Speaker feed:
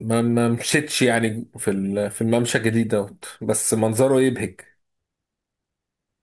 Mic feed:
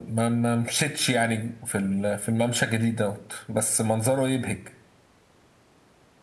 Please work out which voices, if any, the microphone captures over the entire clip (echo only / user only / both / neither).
echo only